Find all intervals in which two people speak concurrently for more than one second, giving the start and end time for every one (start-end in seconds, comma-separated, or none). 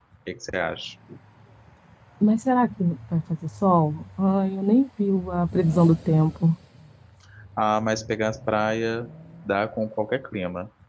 none